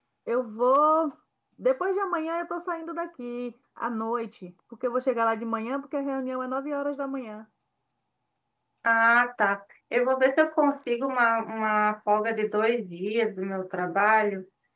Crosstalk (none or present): none